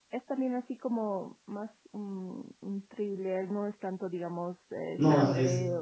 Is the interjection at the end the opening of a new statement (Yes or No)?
Yes